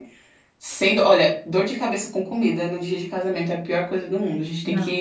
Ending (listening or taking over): listening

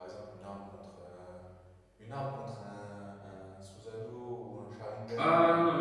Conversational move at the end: taking over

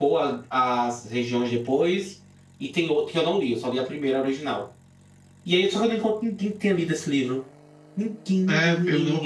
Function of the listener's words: taking over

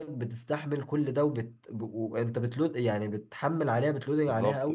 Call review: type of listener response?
taking over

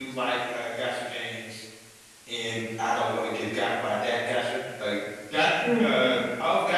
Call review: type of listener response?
listening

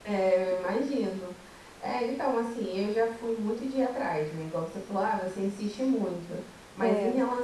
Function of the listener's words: listening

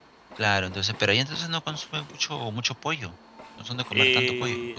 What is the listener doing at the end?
taking over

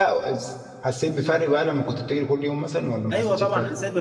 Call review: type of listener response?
taking over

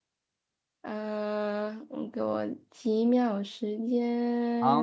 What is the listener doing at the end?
taking over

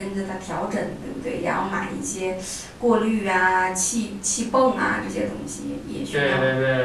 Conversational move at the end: taking over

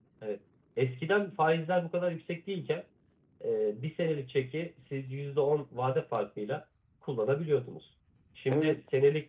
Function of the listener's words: listening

